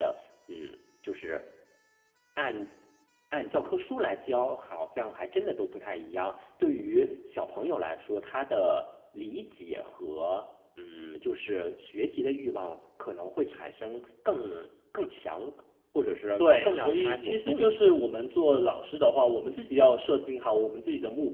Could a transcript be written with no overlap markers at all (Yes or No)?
No